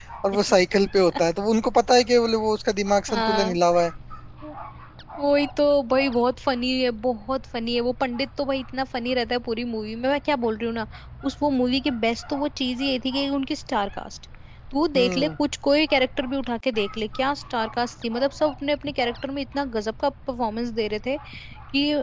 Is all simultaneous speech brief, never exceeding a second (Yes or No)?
Yes